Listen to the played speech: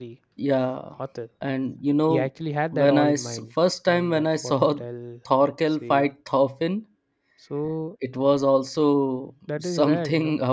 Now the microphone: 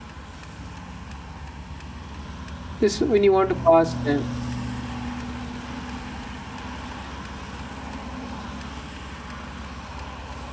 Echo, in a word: none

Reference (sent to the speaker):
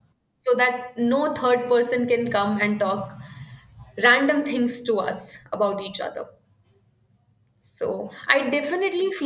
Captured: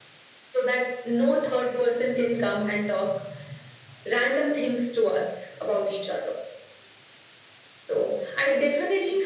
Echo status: present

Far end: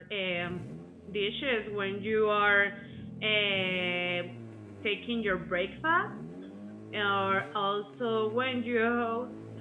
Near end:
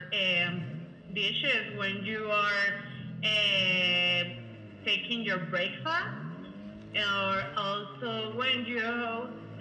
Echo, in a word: present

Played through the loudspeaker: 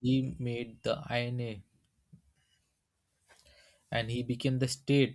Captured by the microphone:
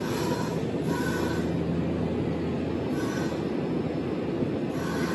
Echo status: none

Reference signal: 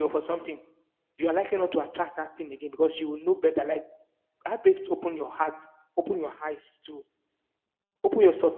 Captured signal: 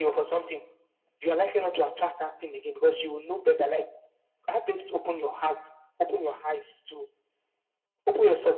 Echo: present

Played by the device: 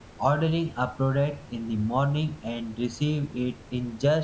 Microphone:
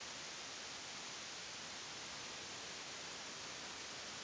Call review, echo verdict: none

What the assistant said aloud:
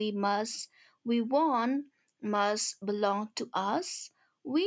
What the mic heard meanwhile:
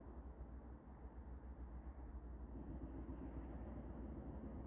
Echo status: none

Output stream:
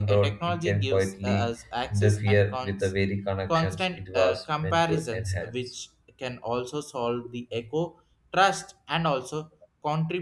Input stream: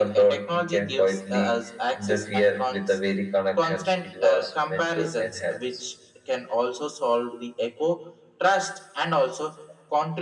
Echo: present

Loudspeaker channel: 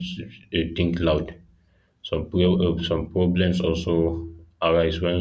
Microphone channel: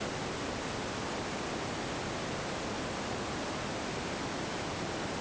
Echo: none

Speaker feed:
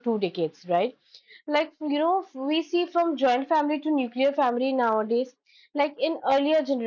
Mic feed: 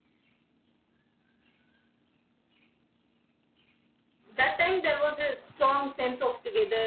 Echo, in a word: none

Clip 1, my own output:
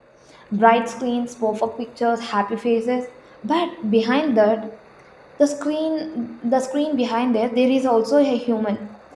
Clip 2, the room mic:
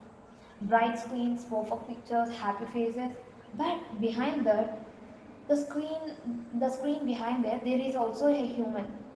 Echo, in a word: present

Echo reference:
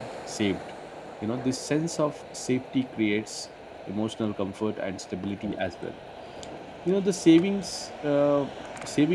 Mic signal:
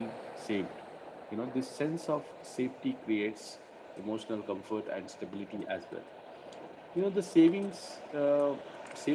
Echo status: present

